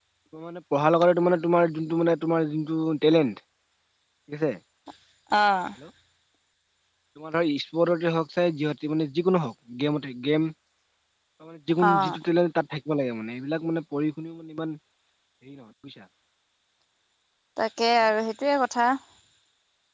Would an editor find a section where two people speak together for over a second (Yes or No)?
No